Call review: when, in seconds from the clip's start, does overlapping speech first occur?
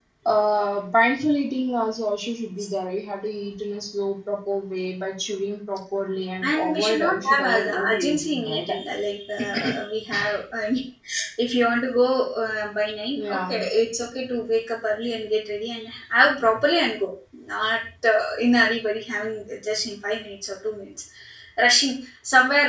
6.5 s

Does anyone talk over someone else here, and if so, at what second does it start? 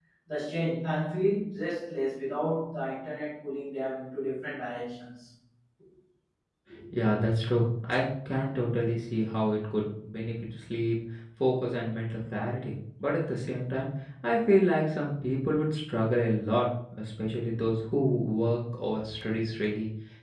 none

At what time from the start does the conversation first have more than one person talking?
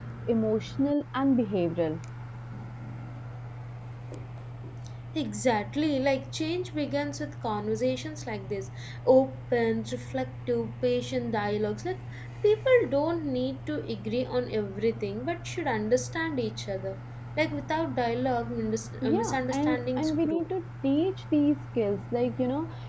19.0 s

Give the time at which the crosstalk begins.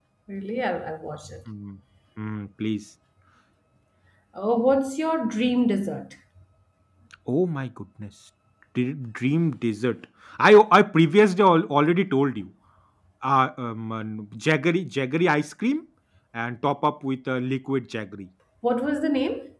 none

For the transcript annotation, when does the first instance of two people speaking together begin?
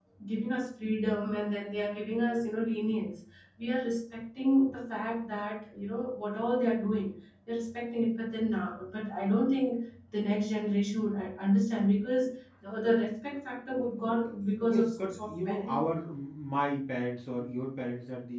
14.6 s

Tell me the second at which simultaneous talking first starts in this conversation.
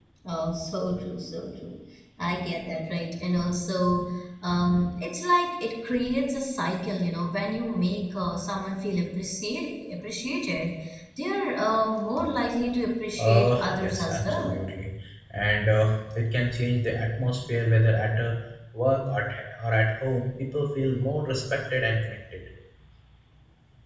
13.2 s

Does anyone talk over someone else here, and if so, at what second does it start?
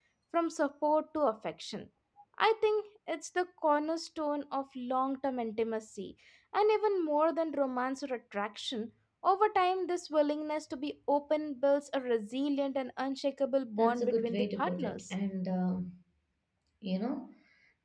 13.8 s

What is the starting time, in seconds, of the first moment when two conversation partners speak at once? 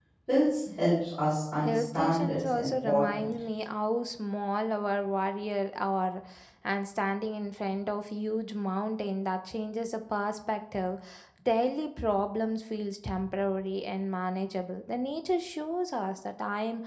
1.6 s

